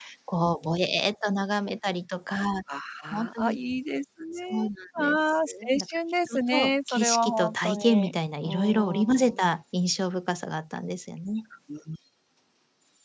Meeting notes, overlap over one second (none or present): present